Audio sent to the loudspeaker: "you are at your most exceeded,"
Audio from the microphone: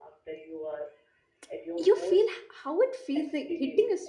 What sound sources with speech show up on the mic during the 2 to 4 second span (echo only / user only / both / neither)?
both